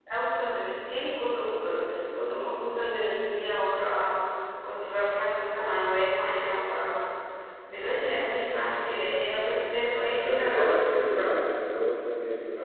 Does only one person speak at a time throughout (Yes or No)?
No